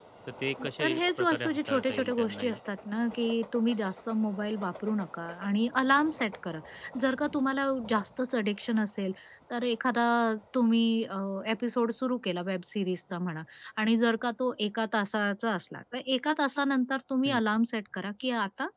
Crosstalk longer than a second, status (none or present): present